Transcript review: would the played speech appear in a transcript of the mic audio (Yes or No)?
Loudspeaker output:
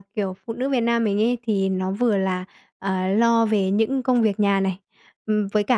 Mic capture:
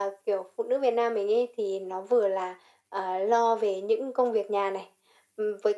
Yes